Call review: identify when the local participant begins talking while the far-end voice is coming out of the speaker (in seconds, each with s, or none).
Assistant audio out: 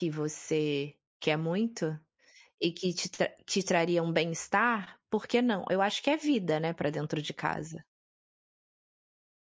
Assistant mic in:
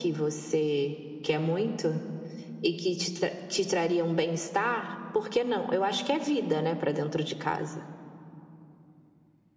none